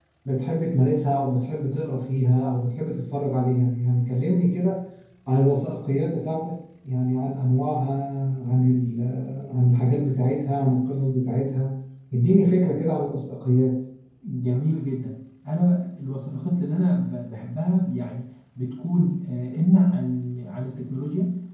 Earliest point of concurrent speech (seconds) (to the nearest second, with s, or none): none